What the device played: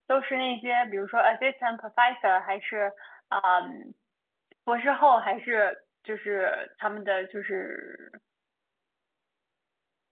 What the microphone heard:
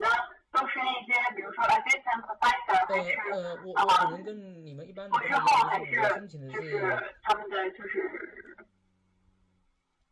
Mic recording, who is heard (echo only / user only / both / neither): both